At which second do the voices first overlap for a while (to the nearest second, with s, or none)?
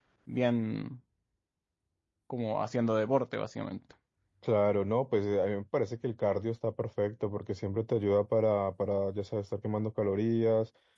none